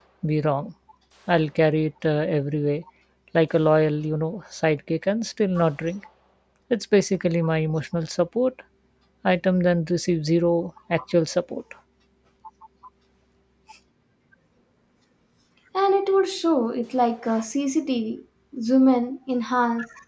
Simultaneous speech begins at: none

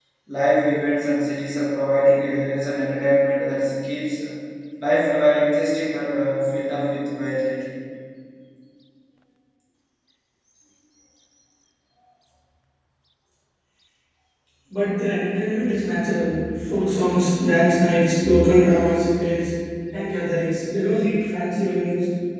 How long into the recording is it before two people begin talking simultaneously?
none

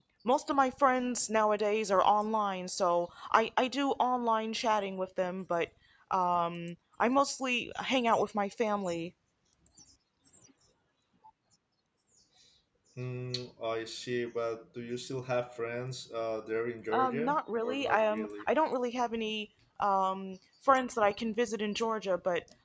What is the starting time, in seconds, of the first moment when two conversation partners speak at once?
17 s

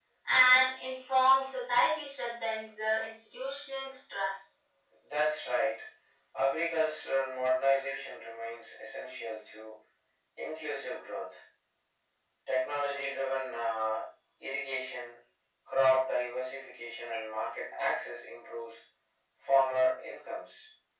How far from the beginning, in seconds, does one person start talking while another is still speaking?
none

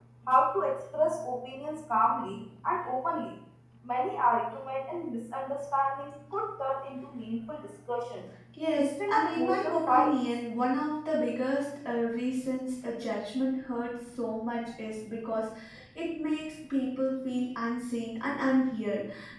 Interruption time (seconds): 9 s

